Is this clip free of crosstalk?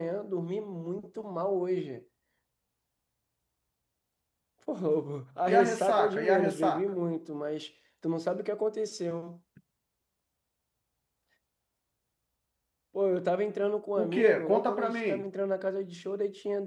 No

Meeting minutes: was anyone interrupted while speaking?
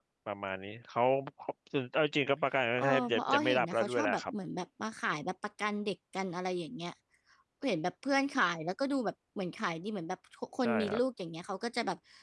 Yes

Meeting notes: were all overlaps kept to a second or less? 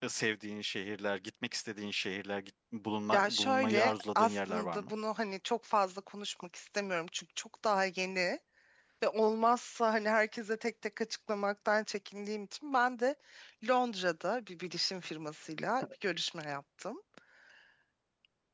No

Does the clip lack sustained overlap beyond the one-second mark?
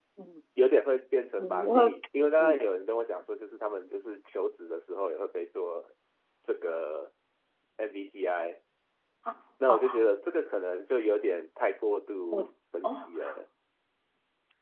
Yes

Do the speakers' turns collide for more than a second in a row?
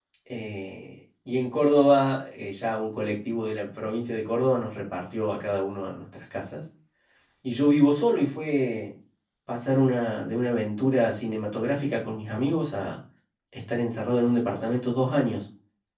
No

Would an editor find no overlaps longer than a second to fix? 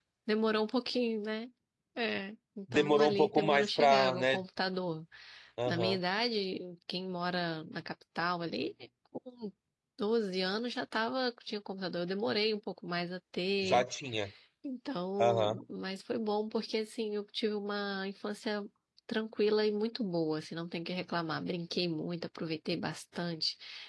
No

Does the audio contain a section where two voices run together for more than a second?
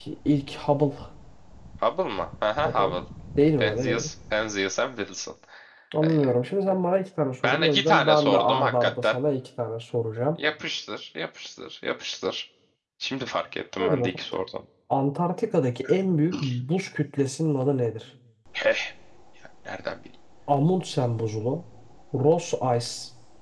Yes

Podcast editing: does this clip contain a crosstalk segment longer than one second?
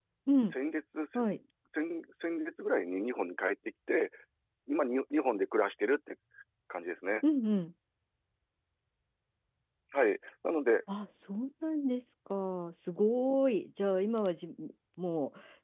No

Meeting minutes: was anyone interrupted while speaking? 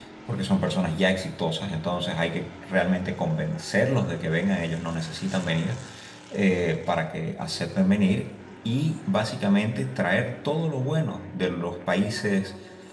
No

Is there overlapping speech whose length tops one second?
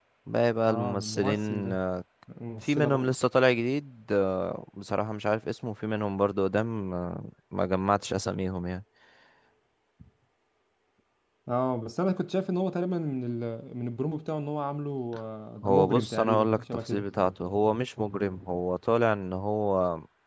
Yes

